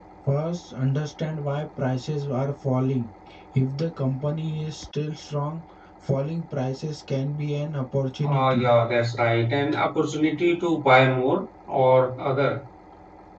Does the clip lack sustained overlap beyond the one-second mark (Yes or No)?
Yes